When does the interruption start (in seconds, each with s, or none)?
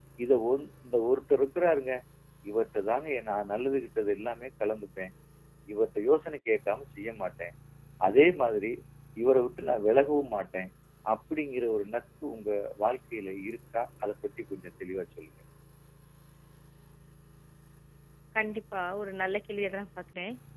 none